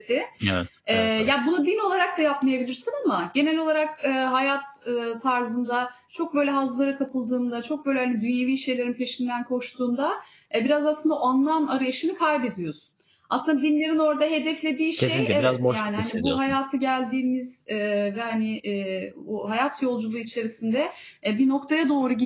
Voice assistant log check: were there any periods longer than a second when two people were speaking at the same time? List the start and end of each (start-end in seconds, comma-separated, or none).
15.0-16.6